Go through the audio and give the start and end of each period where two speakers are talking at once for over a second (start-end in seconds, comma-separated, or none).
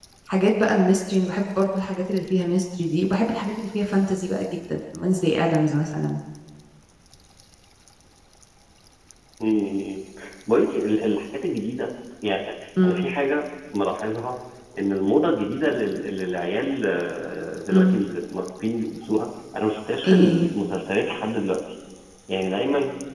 none